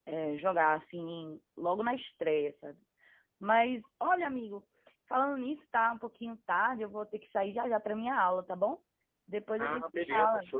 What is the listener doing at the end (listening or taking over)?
taking over